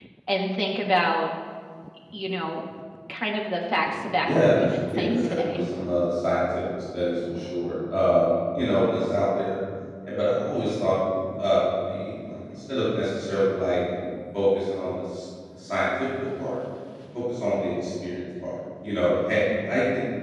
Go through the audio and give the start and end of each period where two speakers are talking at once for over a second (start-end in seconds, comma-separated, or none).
4.2-5.6